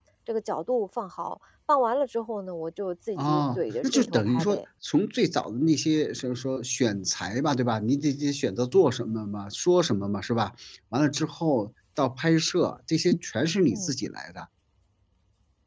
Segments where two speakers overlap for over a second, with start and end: 3.2-4.6

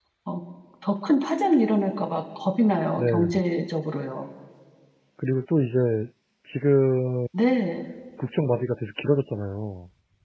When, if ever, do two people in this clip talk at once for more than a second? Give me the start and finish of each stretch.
none

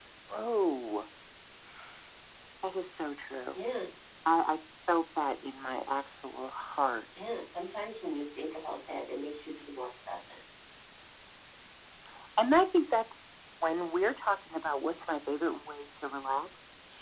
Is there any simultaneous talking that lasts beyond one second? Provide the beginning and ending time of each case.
none

